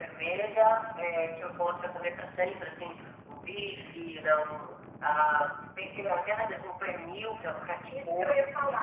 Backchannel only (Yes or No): No